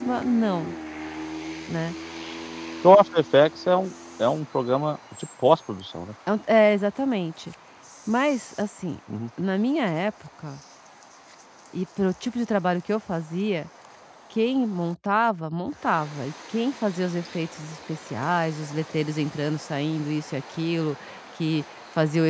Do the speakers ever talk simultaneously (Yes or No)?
No